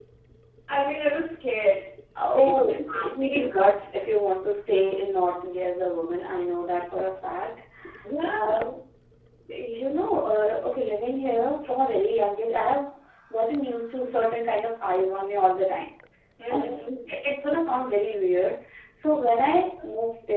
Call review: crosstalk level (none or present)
present